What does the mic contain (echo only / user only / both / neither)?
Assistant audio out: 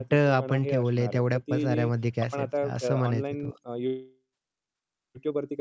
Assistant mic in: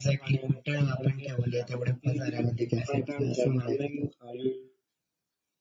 echo only